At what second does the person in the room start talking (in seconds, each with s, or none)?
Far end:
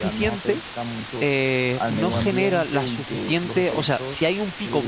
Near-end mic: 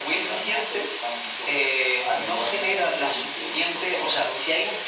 none